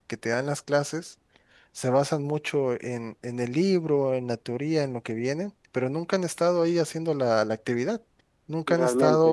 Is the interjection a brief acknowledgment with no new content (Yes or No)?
Yes